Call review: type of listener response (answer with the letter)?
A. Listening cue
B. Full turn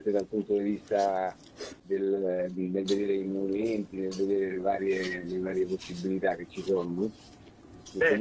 B